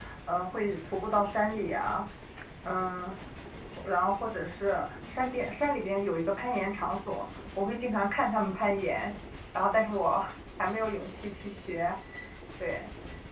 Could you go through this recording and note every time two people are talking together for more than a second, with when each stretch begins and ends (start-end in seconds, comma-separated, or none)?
none